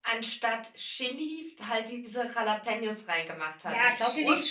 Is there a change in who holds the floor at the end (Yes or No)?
Yes